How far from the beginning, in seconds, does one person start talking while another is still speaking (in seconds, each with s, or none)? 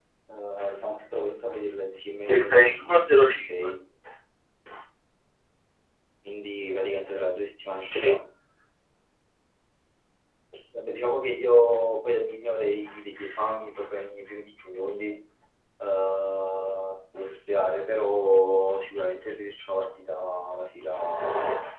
2.3 s